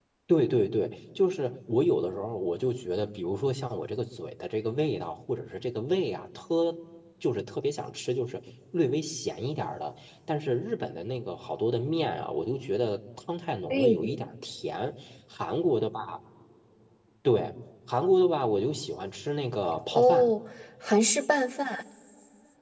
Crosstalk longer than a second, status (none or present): none